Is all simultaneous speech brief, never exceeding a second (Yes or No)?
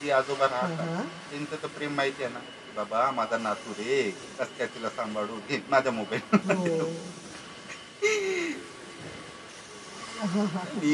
Yes